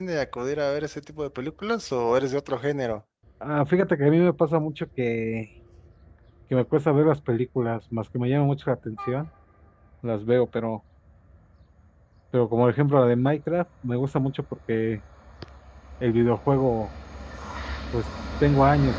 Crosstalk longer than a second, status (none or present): none